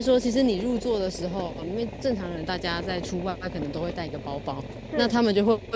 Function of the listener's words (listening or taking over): listening